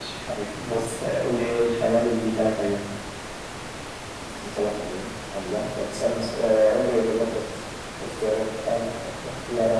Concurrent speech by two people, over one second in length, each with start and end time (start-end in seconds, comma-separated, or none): none